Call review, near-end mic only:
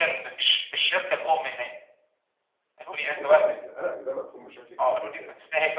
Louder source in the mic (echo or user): echo